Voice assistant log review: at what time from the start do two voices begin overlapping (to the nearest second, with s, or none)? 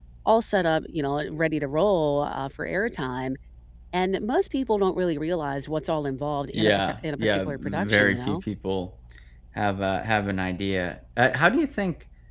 7 s